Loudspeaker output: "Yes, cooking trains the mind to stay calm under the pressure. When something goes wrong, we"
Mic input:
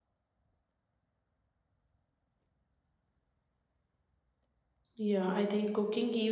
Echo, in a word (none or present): none